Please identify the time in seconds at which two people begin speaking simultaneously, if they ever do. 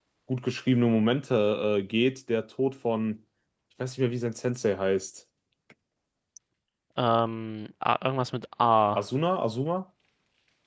none

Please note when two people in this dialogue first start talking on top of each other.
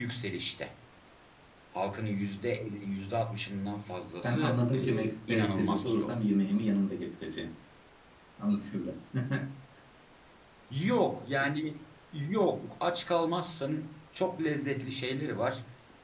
4.2 s

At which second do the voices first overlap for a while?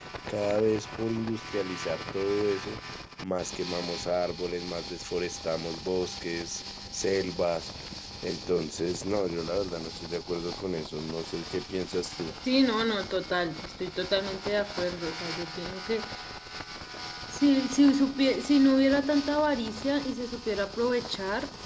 none

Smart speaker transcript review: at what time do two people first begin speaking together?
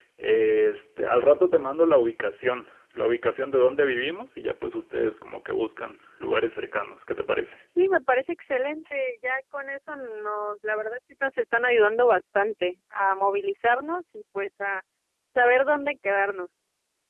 none

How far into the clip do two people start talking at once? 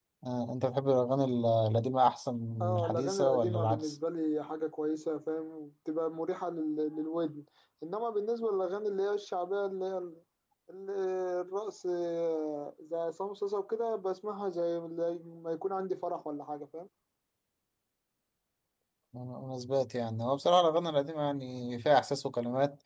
2.6 s

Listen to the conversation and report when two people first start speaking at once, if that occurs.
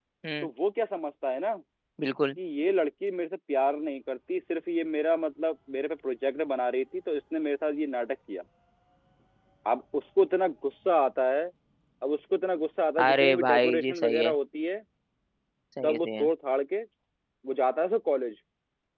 13.0 s

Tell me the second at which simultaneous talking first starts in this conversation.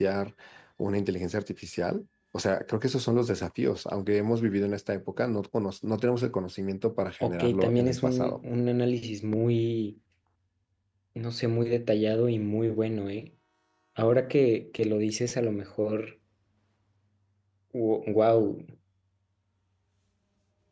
7.2 s

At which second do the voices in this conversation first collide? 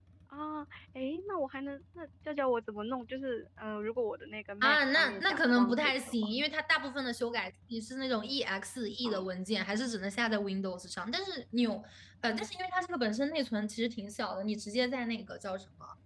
4.6 s

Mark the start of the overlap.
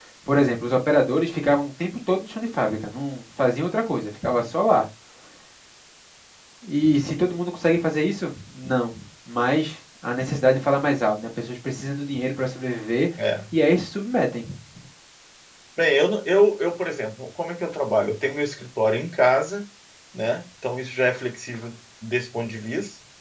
none

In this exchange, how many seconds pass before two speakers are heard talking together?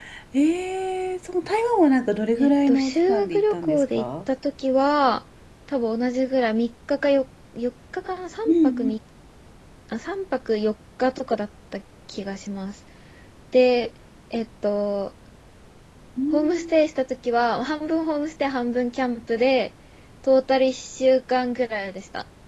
2.4 s

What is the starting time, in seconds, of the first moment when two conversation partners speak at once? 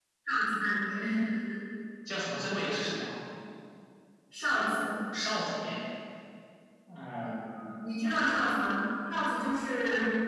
none

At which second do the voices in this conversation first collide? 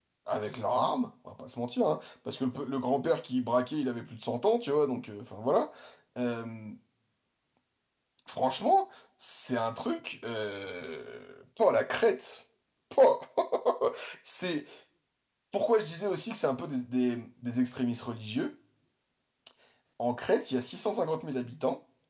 none

